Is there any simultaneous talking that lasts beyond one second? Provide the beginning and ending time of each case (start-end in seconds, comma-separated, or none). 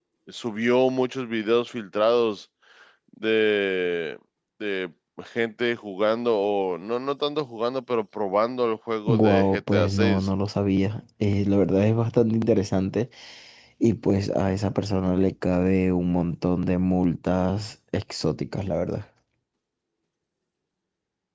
9.1-10.3